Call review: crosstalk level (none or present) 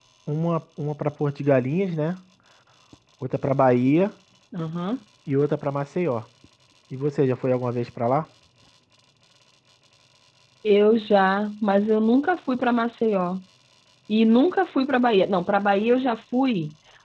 none